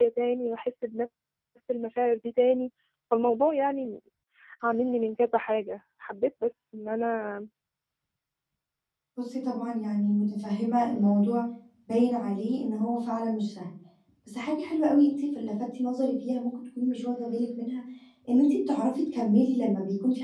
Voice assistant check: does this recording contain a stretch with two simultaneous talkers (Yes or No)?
No